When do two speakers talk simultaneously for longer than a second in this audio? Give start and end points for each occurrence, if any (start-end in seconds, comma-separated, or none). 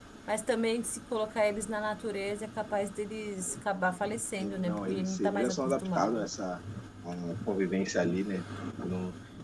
4.4-6.3